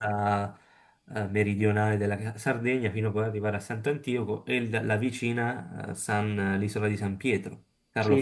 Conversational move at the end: taking over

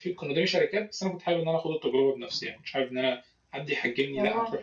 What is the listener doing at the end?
listening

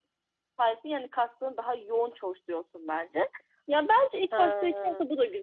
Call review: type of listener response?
listening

